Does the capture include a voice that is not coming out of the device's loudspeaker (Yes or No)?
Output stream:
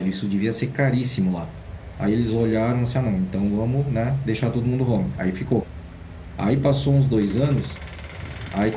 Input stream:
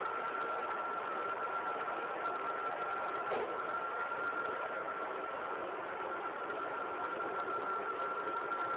No